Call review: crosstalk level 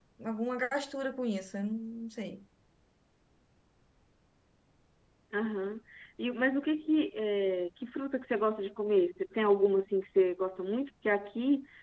none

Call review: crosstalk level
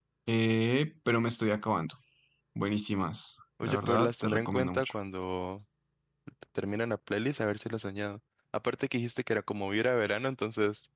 present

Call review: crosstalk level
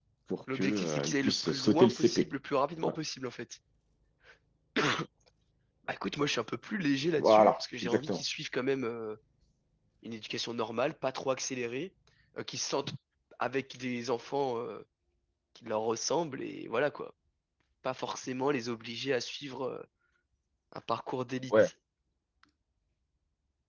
present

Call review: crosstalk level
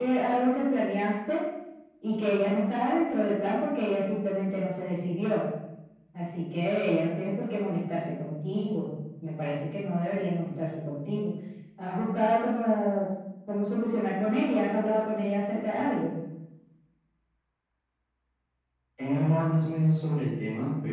none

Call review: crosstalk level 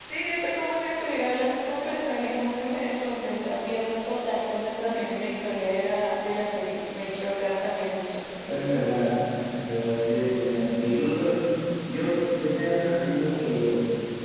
none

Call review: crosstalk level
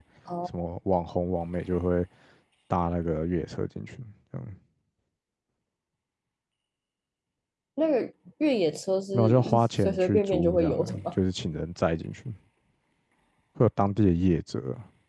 present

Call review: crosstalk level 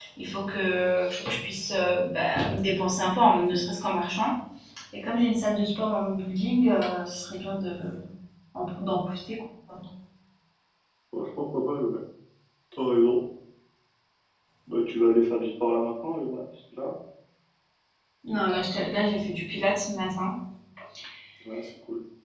none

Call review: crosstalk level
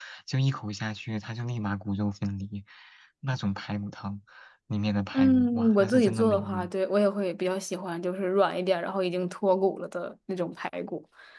present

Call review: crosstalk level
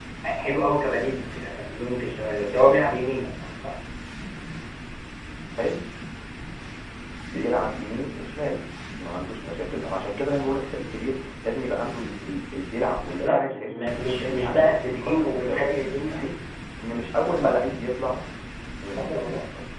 present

